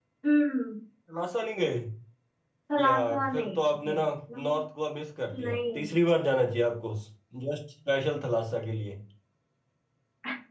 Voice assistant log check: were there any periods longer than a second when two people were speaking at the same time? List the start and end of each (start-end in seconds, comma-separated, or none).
2.8-4.0